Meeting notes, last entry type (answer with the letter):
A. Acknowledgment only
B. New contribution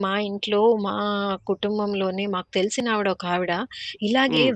A